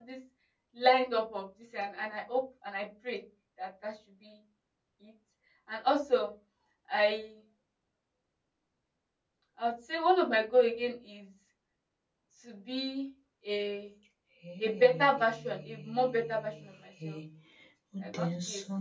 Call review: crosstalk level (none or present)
present